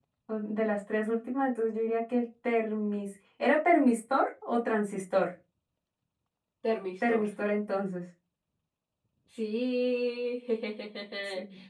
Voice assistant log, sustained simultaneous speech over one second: none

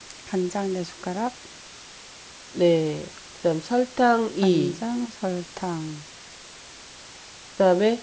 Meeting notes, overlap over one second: none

